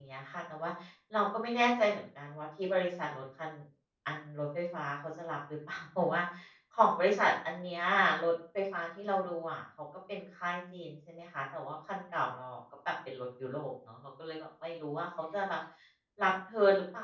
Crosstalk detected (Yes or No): No